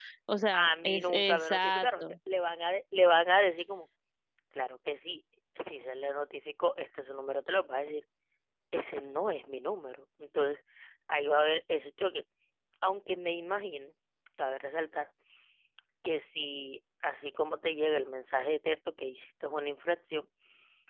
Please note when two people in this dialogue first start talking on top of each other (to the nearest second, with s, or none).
1 s